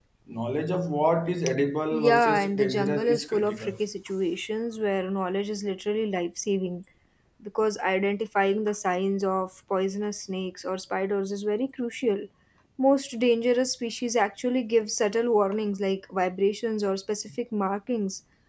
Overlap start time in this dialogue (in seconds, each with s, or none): 1.9 s